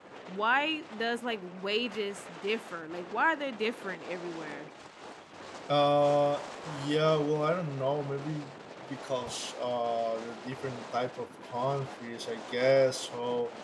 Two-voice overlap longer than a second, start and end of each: none

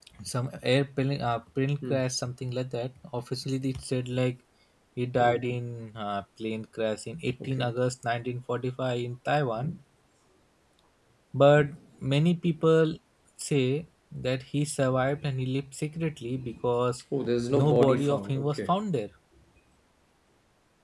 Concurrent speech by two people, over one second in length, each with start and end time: 17.5-18.8

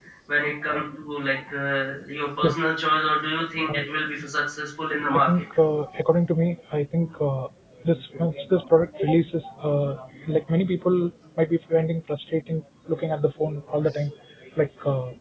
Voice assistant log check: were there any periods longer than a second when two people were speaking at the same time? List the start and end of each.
none

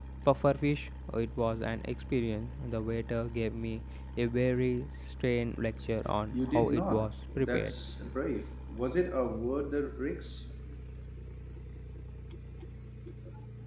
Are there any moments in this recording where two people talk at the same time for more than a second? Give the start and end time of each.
6.3-7.7

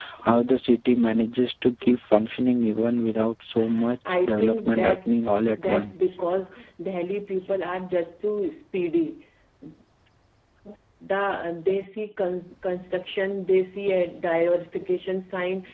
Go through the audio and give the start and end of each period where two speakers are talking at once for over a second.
4.2-5.9

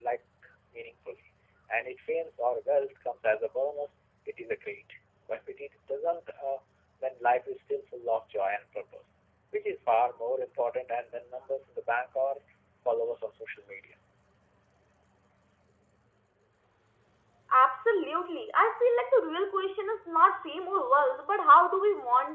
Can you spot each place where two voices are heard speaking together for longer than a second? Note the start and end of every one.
none

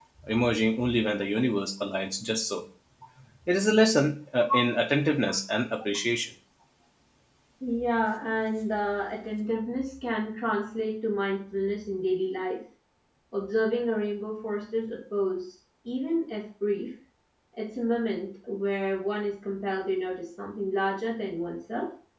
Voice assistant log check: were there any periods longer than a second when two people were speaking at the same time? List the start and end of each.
none

